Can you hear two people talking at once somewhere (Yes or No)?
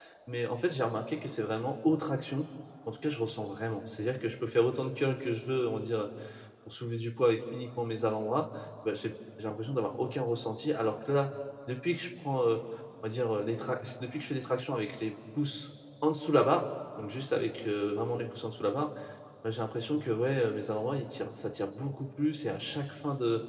No